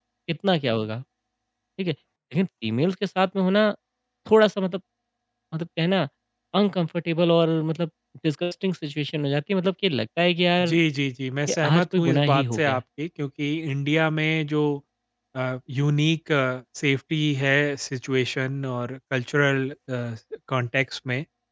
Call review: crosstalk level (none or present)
present